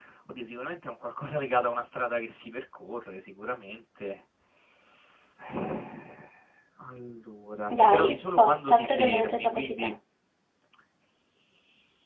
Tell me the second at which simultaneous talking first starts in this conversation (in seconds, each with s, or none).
7.7 s